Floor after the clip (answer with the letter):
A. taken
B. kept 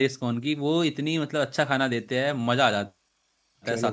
A